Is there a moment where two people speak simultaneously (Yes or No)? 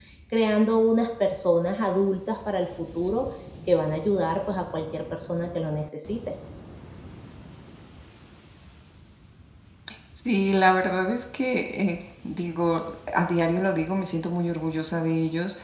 No